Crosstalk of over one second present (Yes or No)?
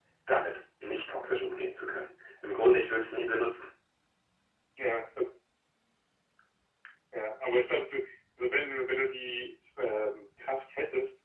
No